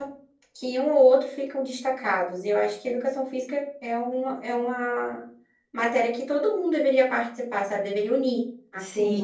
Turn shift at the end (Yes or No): Yes